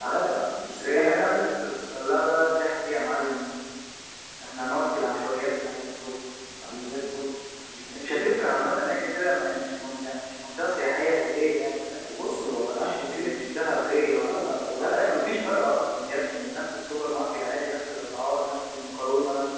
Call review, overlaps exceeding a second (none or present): present